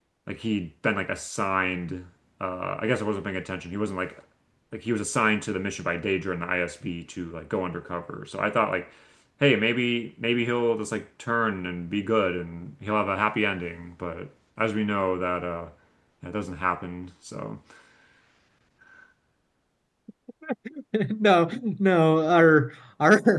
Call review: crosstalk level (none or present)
none